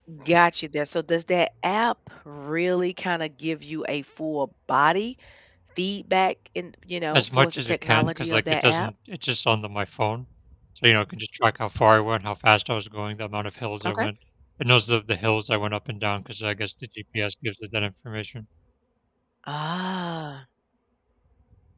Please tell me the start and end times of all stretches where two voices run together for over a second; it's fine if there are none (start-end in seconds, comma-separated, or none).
7.1-8.9